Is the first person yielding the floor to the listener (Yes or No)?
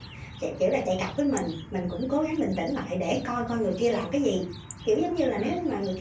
No